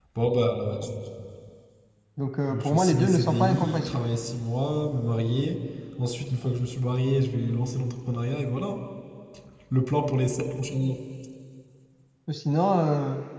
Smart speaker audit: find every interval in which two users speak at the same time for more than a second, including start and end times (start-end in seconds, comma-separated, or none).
2.5-4.1